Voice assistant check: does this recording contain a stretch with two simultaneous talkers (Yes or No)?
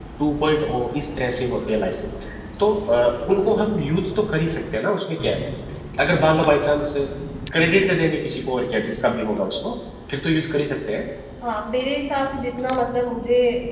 No